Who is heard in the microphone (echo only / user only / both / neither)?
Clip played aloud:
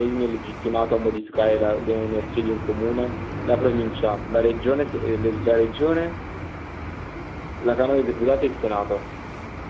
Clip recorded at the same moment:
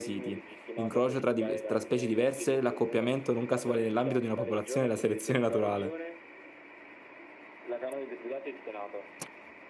both